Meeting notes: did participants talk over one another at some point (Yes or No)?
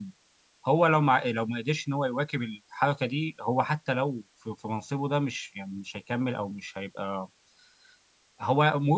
No